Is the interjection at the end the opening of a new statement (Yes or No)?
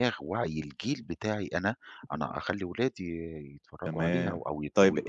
Yes